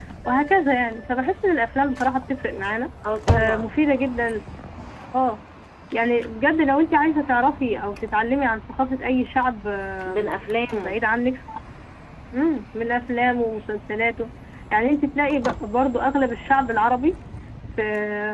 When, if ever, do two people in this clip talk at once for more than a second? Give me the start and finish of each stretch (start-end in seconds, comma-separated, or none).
none